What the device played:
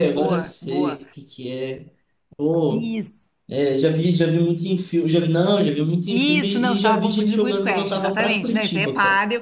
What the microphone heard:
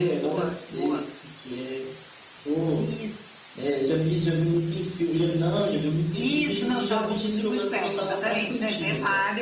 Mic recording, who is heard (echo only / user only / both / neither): echo only